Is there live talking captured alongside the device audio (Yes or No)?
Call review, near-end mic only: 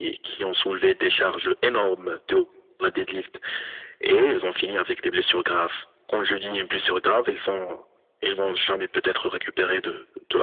No